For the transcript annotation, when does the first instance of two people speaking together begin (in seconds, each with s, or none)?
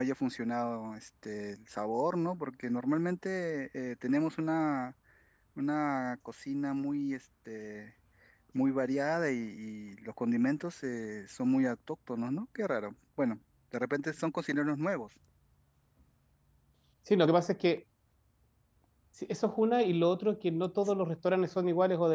none